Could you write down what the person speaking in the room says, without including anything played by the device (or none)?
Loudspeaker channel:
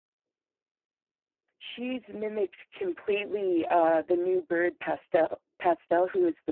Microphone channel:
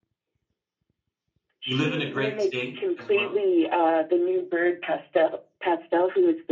You live in a great state as well?